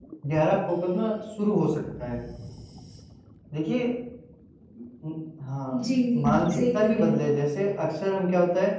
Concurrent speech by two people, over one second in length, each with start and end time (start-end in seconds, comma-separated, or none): 5.7-7.2